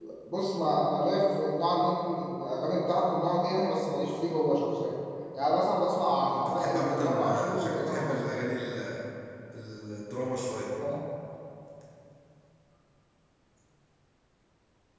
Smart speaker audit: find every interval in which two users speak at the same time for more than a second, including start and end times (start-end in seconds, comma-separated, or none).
6.4-8.2